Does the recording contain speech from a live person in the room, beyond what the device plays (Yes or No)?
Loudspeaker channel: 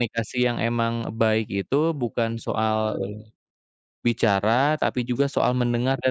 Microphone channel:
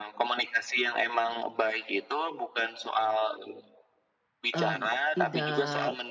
Yes